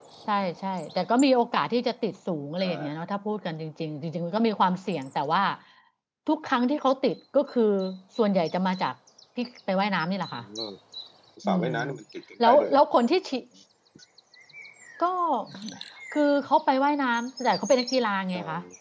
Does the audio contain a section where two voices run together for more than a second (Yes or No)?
No